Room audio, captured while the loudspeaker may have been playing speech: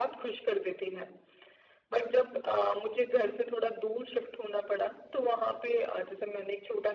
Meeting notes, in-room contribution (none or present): none